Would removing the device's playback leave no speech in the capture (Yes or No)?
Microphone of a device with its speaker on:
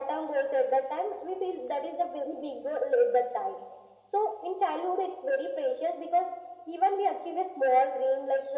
Yes